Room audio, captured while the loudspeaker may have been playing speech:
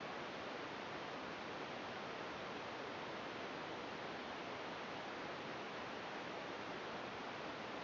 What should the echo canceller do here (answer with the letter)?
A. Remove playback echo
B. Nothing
B